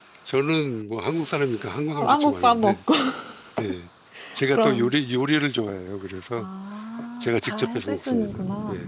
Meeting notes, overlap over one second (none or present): present